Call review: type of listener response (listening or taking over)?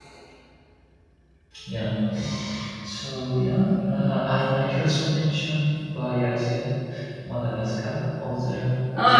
listening